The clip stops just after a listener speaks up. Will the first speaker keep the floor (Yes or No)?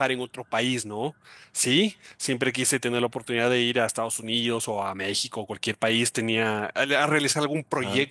Yes